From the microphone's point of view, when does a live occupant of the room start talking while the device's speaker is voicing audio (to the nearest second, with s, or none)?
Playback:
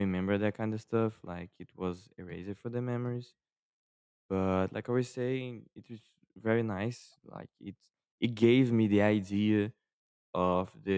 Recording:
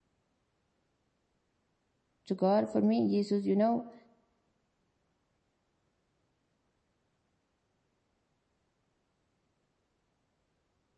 2 s